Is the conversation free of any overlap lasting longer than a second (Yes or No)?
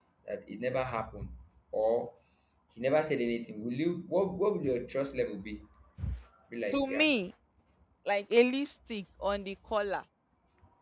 Yes